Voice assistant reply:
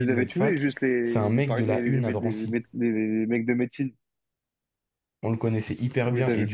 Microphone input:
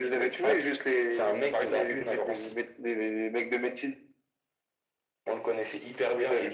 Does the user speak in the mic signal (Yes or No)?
No